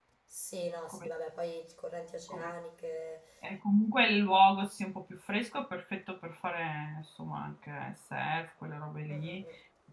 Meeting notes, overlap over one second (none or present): none